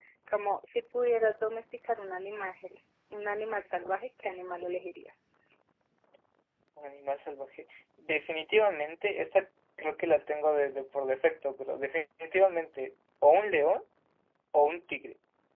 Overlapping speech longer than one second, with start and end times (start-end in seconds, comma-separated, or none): none